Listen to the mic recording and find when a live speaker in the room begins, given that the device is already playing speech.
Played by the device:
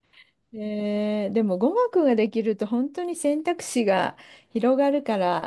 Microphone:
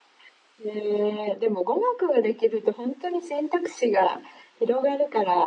none

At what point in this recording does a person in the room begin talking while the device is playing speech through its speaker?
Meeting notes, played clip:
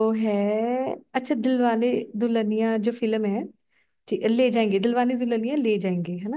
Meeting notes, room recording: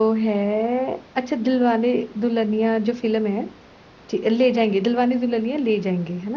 none

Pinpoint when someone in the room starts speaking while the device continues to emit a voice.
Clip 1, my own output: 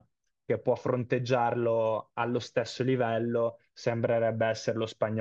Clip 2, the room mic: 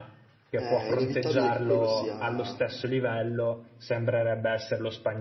0.5 s

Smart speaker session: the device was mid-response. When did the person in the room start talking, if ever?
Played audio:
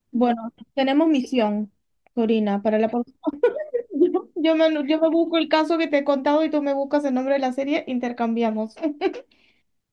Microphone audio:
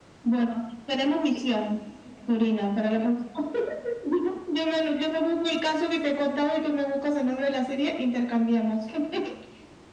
none

